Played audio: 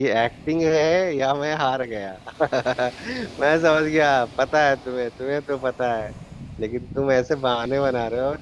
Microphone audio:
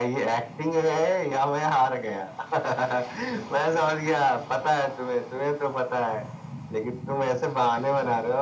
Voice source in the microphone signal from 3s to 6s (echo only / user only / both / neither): echo only